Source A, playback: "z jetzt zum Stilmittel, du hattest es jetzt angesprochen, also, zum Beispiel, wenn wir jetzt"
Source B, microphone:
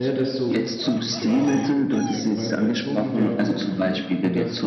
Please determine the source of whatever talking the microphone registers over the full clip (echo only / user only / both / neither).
both